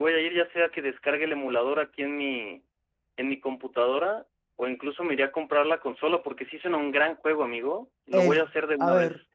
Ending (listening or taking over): taking over